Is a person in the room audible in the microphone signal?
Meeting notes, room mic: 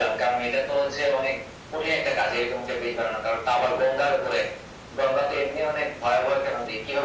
No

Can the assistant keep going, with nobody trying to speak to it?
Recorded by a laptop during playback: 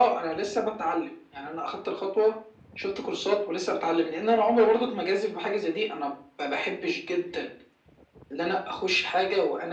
Yes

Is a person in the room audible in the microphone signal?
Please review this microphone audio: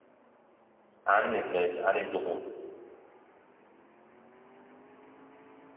Yes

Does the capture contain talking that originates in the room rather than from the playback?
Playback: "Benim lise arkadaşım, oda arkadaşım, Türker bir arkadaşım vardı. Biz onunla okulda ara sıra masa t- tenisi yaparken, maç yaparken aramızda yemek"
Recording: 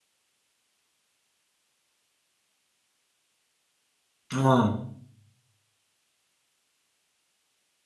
Yes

